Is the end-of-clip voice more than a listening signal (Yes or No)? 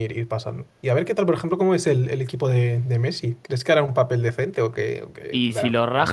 Yes